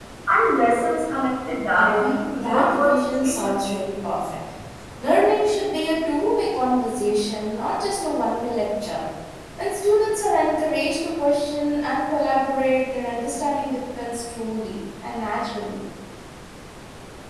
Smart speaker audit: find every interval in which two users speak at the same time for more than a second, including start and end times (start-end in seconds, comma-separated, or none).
1.8-3.6